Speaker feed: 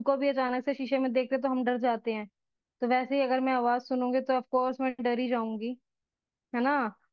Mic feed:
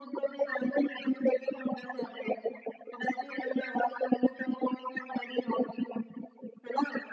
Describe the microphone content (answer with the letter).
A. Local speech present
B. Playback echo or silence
B